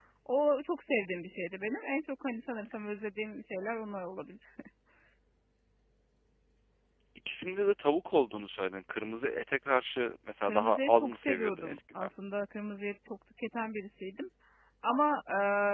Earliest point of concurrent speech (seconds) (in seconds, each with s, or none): 10.4 s